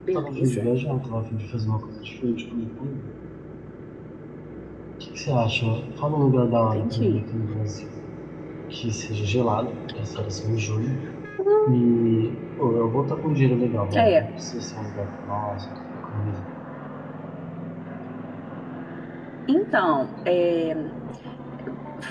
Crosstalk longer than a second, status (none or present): none